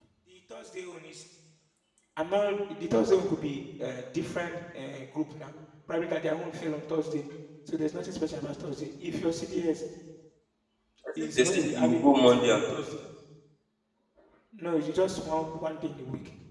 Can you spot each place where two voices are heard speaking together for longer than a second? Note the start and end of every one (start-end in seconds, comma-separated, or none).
11.2-12.9